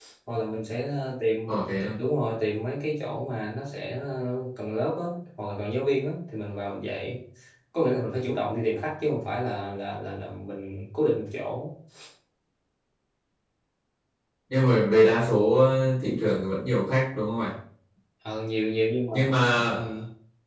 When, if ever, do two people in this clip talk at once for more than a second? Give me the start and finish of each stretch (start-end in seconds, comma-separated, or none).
none